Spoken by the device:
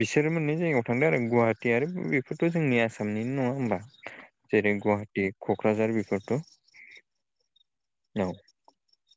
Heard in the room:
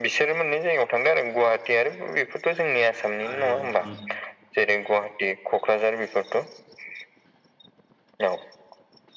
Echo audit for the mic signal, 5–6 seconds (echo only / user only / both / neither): echo only